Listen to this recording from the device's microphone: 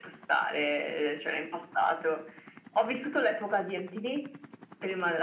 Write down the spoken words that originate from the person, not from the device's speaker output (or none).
none